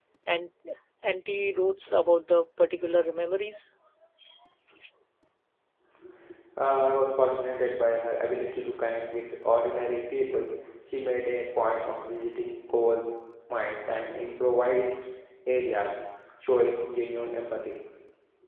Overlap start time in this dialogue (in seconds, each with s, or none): none